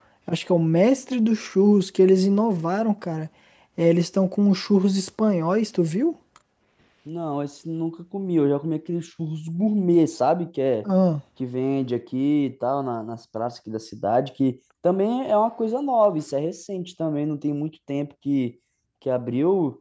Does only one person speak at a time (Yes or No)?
Yes